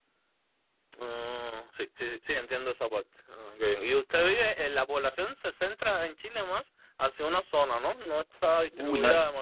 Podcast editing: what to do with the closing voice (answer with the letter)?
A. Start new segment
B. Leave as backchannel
A